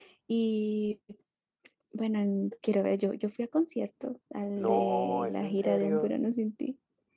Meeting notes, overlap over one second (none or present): present